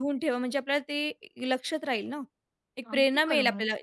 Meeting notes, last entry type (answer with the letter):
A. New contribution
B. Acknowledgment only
B